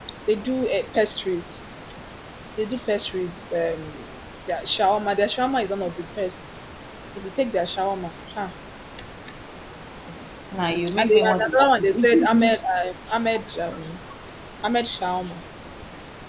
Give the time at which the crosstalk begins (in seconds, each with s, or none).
11.0 s